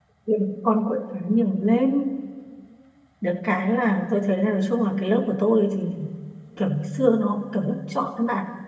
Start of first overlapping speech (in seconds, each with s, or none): none